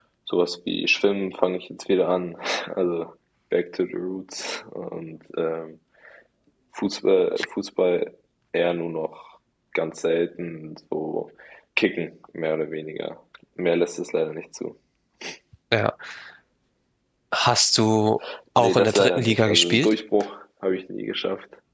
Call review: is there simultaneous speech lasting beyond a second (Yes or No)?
Yes